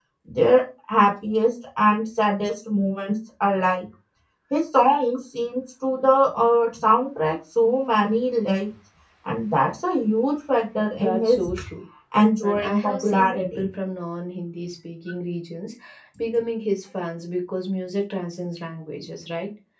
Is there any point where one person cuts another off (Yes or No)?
Yes